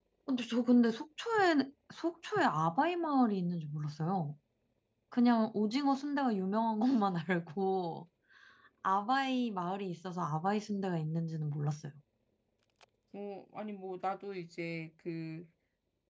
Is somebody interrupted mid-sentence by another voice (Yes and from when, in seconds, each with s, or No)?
No